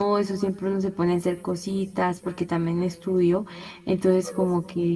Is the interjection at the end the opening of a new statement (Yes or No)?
No